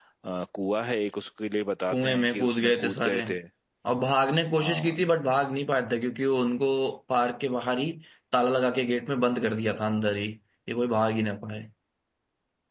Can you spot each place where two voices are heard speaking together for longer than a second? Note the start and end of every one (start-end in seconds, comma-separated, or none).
1.9-3.2